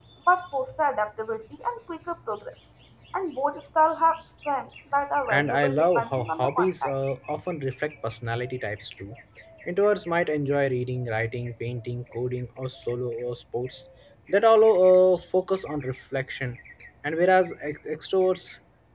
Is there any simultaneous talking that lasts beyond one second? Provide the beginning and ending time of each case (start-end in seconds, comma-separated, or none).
5.3-6.9